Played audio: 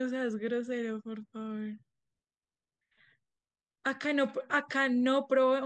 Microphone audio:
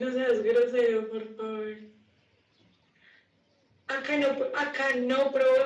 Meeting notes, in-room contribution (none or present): none